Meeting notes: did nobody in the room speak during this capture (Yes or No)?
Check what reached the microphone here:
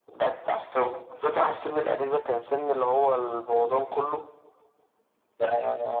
Yes